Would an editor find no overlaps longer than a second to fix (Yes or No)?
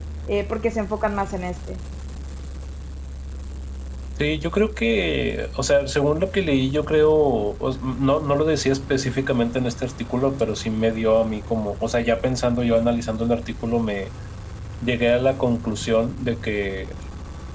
Yes